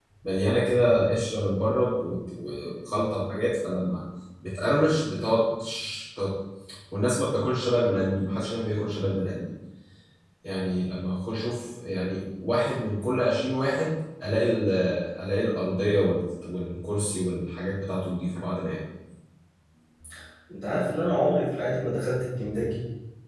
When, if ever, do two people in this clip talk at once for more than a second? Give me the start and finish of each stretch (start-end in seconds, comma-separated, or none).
none